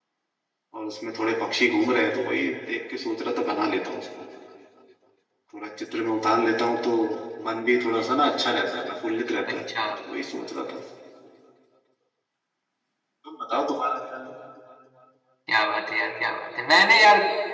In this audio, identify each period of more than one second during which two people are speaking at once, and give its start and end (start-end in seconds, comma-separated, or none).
none